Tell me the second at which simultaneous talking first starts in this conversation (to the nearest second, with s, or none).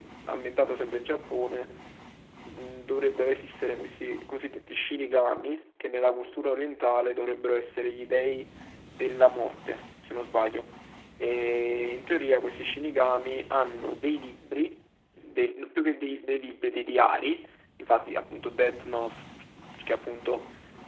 none